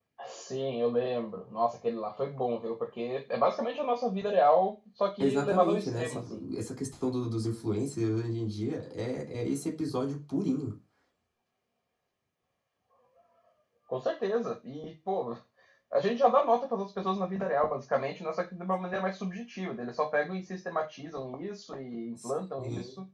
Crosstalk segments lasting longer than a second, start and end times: 5.2-6.4

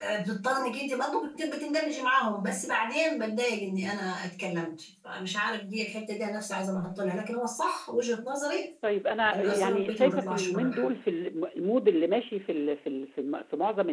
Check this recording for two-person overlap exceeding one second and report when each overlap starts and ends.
9.3-10.9

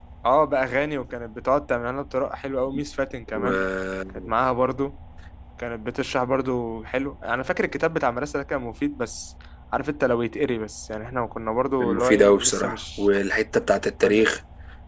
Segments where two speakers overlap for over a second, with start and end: 11.8-13.0

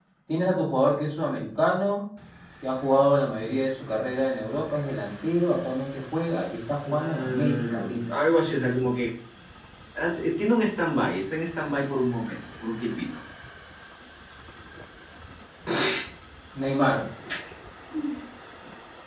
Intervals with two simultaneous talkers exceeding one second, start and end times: 6.9-8.2

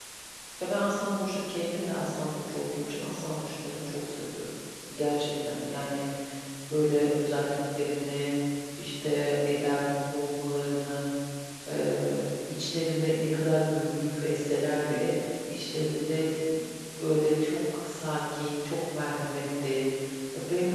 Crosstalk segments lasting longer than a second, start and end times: none

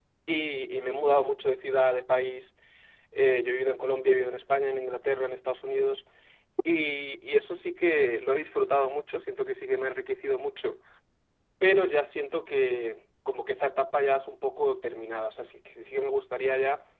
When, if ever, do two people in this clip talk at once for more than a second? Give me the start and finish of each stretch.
none

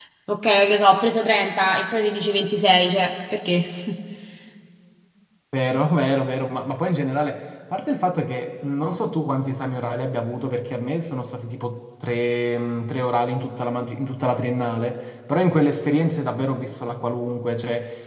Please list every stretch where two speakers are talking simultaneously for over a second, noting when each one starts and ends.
none

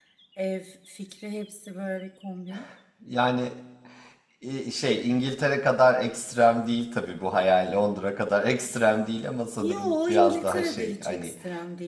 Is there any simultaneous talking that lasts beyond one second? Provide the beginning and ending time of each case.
9.6-11.3

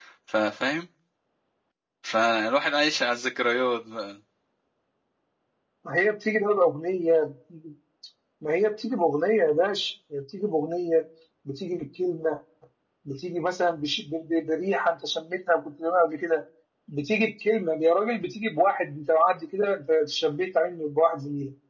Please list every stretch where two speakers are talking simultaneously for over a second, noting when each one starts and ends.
none

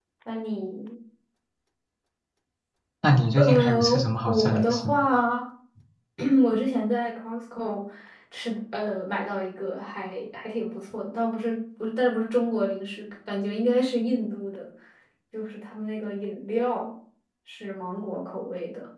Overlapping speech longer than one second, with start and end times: 3.4-5.0

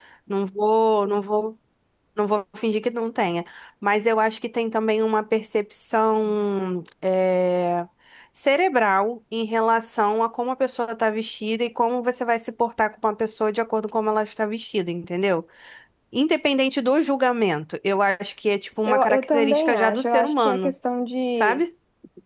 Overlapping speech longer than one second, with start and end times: 18.8-20.7

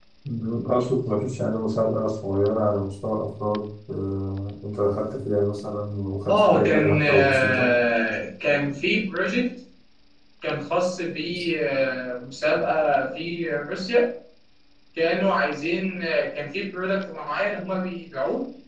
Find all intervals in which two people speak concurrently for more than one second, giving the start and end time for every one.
6.3-7.7

